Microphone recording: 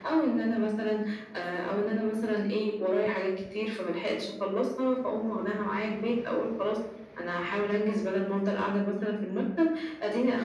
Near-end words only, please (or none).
none